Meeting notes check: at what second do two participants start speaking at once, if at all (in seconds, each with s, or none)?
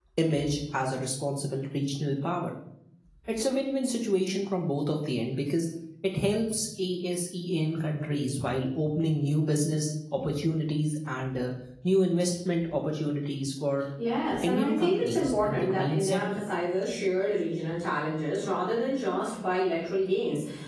14.4 s